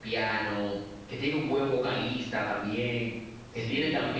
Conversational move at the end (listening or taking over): listening